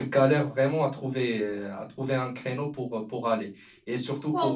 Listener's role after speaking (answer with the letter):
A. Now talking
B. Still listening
B